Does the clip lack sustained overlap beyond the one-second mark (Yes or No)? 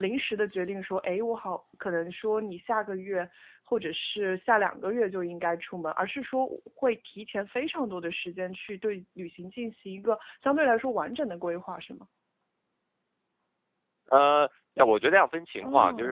Yes